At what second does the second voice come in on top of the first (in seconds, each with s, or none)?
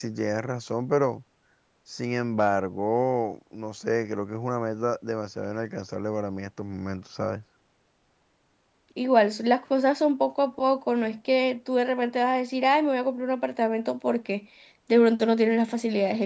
none